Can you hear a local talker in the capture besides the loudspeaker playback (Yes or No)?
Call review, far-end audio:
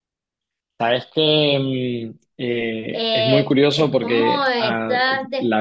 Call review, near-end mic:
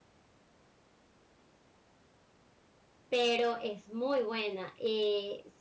Yes